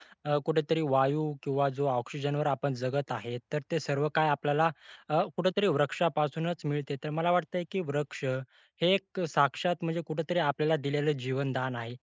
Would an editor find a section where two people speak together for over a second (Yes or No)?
No